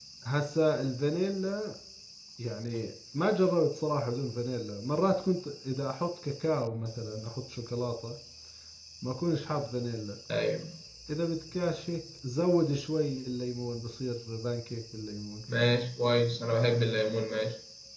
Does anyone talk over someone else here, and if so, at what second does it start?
none

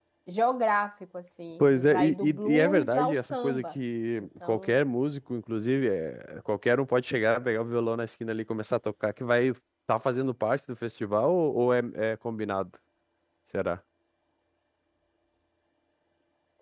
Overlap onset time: 1.6 s

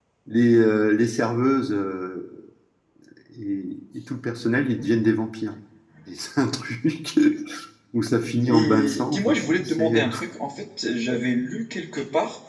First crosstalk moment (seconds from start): 8.4 s

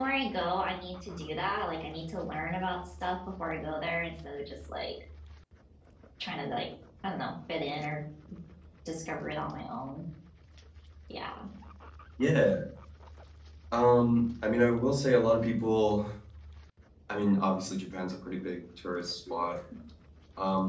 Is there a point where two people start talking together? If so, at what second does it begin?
none

